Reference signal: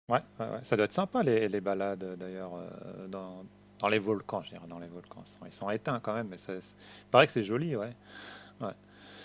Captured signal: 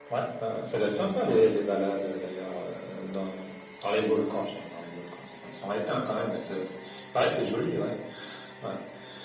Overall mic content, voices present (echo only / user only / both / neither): echo only